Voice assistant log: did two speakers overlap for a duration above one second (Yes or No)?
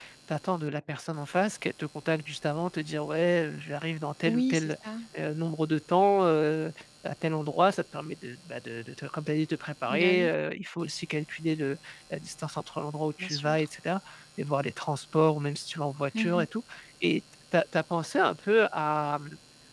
No